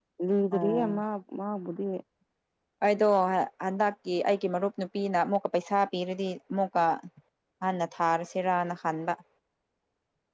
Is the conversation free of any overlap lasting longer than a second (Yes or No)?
Yes